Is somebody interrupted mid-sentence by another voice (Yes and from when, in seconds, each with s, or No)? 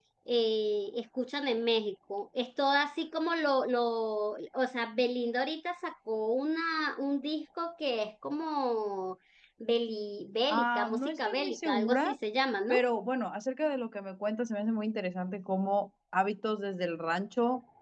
Yes, from 10.5 s